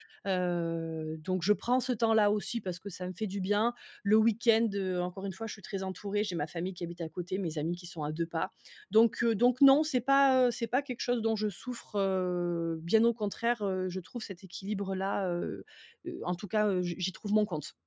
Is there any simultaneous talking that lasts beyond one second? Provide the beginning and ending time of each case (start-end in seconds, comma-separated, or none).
none